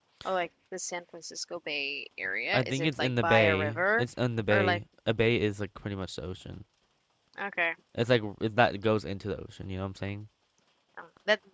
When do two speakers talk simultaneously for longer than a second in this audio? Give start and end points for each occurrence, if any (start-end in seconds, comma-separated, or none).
2.5-4.0